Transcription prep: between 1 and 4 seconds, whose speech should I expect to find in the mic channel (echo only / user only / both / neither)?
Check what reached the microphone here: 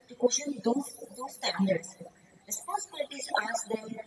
echo only